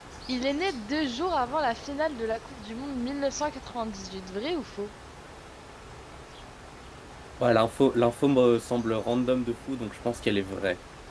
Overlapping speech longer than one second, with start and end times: none

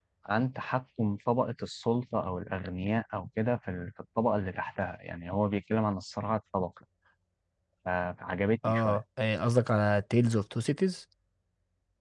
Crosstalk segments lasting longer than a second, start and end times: none

